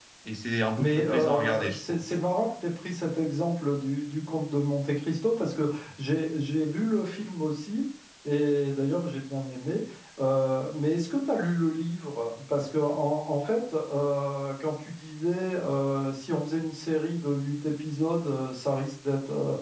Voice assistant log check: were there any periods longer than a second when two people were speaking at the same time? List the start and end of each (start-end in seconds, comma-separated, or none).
0.8-2.0